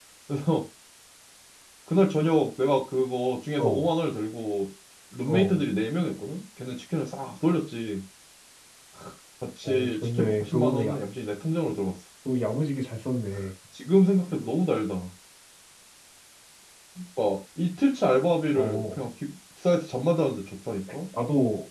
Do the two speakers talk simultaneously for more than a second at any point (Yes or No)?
Yes